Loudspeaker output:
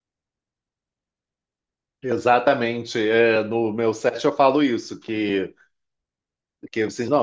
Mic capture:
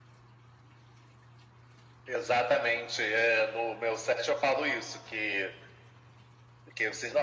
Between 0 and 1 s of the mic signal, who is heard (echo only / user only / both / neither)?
neither